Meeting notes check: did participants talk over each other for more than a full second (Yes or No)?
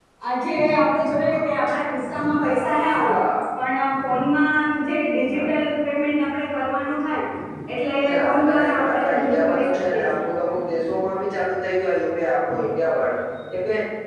Yes